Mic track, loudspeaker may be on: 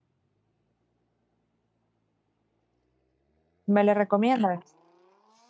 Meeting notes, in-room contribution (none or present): present